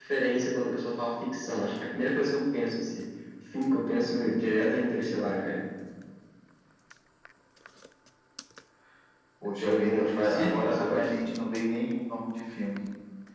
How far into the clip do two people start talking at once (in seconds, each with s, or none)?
9.6 s